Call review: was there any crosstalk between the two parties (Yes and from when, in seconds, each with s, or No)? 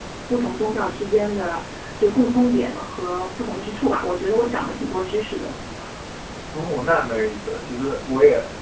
No